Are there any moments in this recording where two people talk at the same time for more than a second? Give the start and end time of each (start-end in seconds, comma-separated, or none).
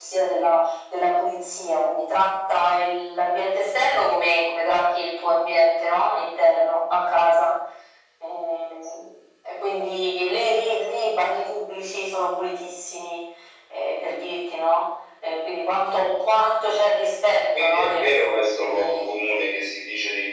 17.6-19.1